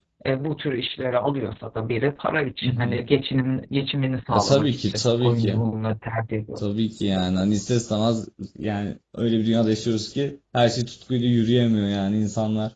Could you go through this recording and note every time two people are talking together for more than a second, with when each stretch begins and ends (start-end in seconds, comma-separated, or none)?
4.3-5.6